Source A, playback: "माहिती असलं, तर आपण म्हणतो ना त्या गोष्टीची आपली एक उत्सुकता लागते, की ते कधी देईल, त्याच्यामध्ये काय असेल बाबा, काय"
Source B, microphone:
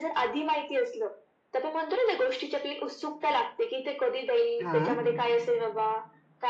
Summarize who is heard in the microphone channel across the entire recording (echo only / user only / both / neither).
both